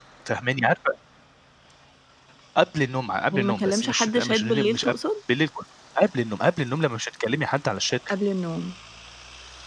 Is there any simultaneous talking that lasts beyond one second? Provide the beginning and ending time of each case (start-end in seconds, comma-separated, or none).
3.3-4.9